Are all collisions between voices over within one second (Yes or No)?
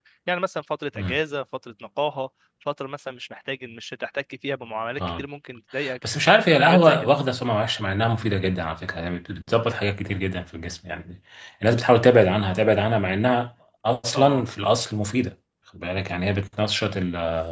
Yes